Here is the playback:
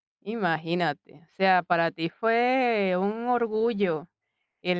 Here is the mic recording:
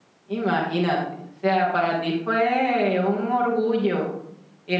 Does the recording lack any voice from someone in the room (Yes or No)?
Yes